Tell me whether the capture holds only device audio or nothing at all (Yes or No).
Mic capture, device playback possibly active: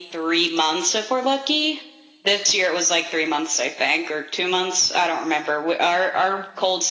Yes